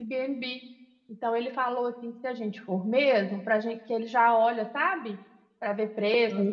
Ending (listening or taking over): listening